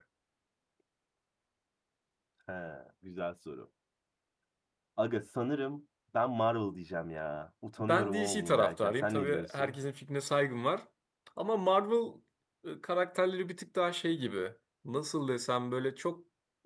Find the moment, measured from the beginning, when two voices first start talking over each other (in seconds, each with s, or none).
7.8 s